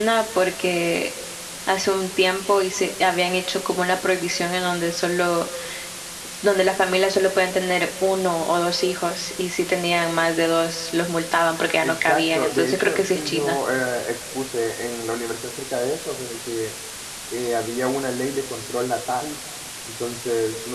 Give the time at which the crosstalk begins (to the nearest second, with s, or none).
12 s